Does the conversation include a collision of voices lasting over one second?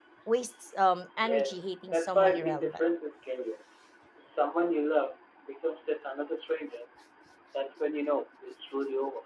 Yes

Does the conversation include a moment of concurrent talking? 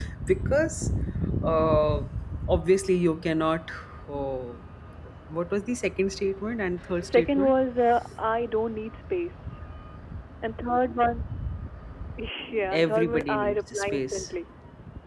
Yes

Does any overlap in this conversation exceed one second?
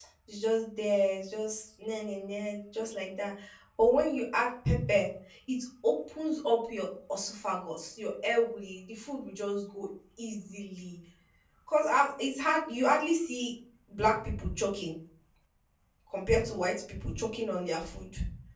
No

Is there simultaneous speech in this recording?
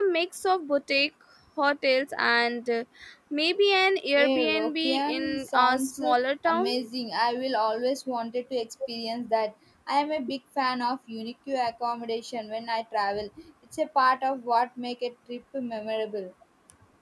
Yes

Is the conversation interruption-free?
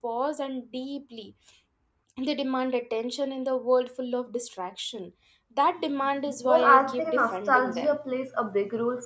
No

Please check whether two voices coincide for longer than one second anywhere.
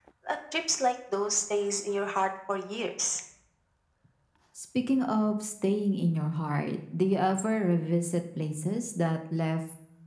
No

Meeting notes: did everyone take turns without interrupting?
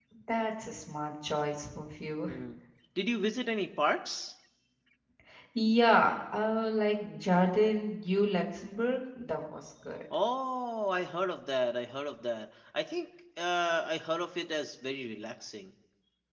Yes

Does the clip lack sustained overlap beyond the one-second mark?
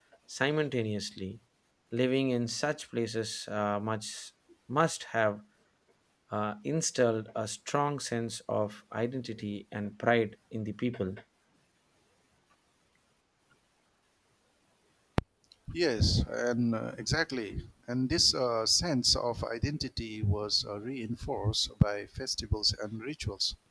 Yes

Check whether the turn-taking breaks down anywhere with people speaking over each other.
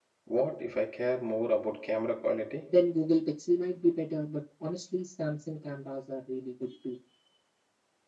No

